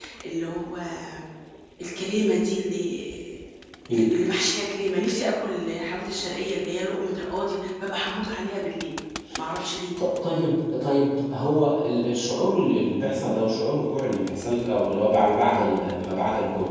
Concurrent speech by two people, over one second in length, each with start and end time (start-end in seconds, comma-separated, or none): none